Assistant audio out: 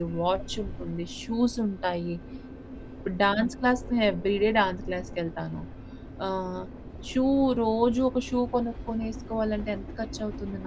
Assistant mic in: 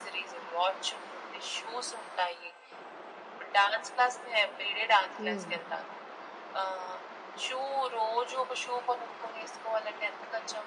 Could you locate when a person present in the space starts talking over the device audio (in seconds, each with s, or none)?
5.2 s